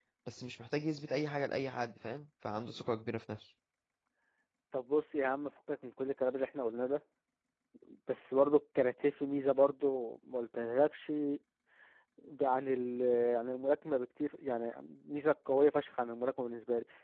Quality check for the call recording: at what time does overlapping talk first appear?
none

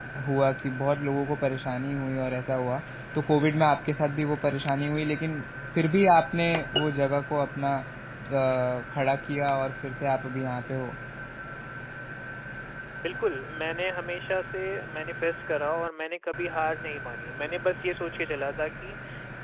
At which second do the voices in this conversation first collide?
none

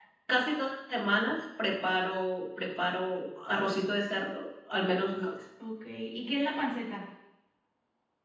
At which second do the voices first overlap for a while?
none

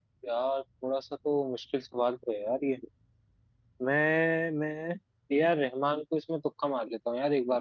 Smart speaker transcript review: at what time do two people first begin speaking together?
none

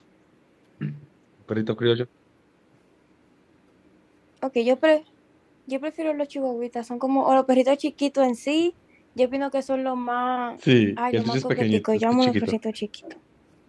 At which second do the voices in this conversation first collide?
11 s

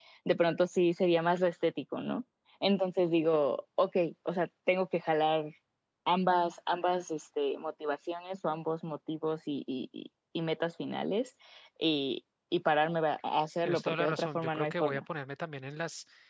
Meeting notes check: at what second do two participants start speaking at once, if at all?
14 s

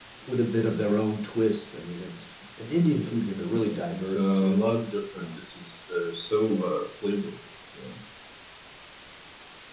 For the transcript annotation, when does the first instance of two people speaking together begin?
3 s

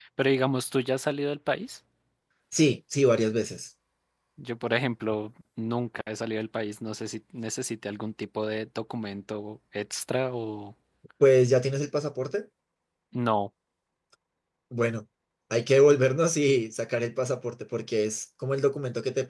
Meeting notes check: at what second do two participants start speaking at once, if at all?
none

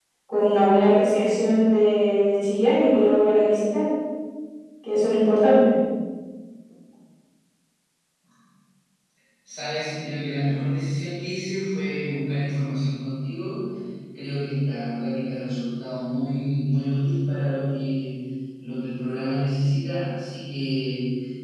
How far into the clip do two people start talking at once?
none

